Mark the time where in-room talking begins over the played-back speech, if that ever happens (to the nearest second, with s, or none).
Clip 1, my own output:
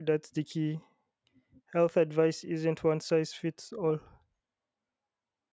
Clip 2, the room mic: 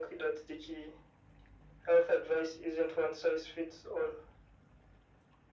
none